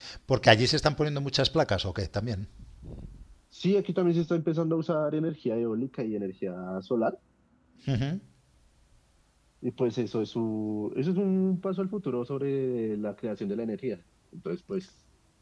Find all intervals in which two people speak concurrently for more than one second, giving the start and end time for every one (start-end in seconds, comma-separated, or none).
none